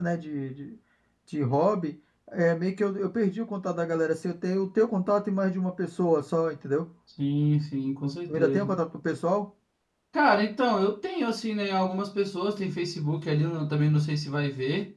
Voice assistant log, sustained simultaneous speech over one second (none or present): none